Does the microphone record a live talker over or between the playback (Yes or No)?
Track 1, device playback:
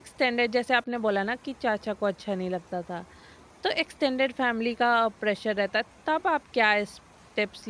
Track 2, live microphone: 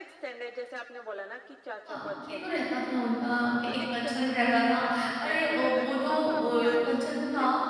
Yes